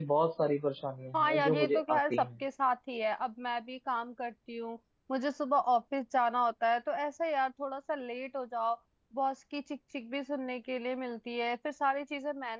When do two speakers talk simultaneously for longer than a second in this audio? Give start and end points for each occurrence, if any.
1.1-2.4

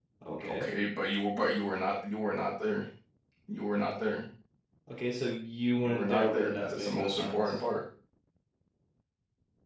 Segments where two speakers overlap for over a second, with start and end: 5.8-7.6

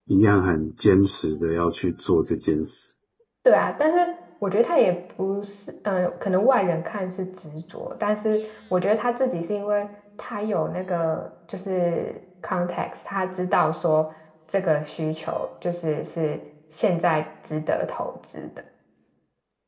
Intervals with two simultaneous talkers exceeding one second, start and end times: none

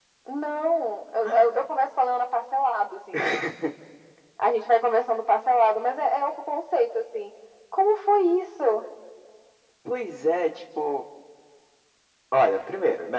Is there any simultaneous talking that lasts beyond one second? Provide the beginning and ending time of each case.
none

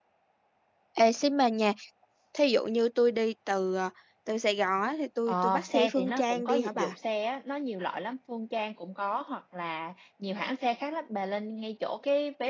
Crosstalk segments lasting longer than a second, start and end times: 5.3-6.9

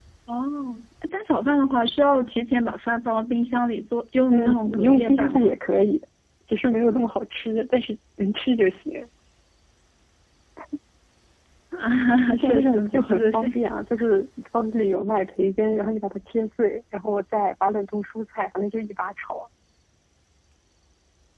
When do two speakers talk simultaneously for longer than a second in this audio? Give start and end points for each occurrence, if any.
4.3-5.5, 12.3-13.5

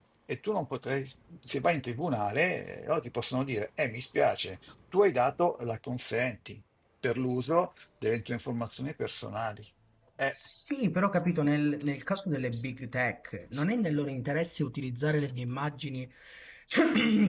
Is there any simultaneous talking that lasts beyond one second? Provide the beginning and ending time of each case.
none

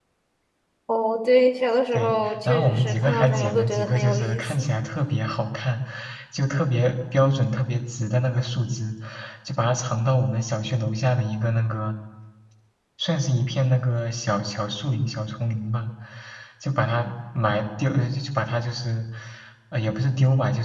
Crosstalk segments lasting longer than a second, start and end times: 1.9-4.7

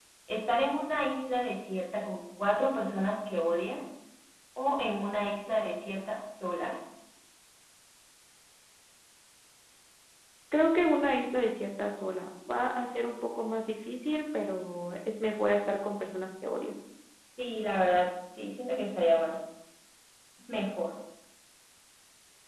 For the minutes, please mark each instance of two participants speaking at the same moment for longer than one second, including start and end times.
none

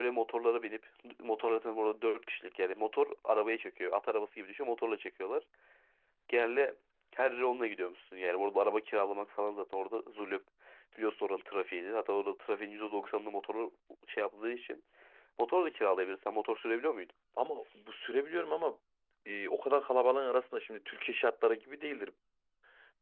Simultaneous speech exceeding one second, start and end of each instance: none

